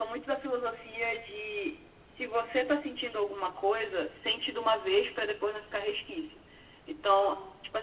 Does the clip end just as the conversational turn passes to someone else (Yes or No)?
No